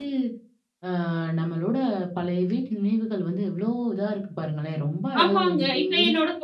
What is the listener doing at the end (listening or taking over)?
taking over